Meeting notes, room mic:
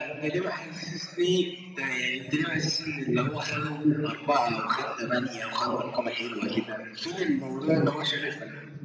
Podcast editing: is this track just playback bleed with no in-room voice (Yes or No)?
Yes